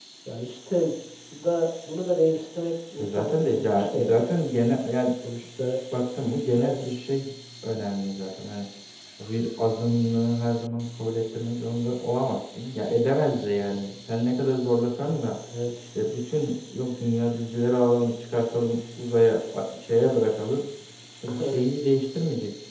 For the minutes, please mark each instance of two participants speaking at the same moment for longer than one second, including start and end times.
3.0-4.2

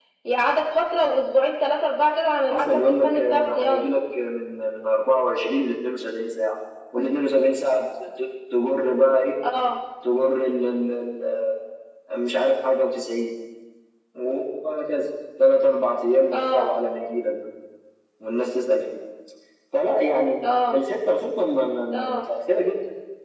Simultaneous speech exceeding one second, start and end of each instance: 2.5-3.9

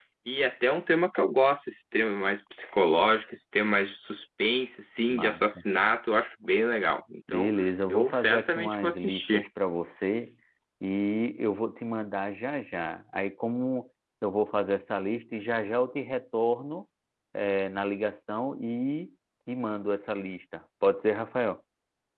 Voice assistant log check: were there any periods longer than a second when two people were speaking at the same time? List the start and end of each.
7.9-9.4

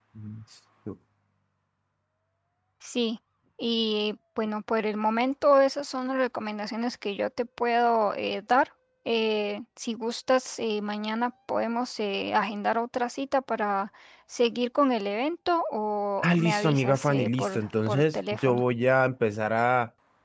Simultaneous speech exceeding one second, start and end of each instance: 16.2-18.6

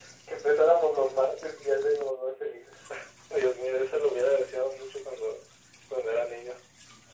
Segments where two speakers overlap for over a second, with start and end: none

